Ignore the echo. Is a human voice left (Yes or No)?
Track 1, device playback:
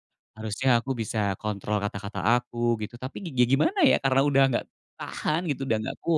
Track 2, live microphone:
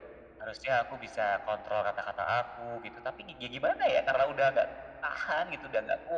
No